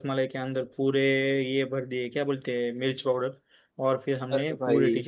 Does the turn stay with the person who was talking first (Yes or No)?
Yes